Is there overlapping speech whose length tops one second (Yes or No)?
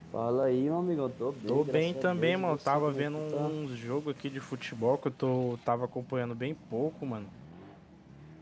Yes